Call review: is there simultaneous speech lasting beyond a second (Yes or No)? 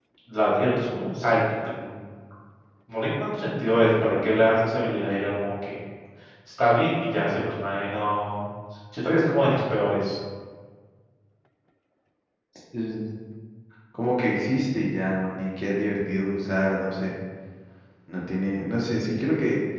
No